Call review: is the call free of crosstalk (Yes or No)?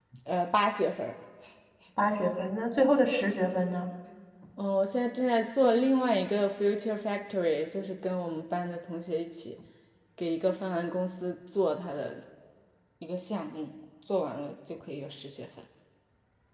Yes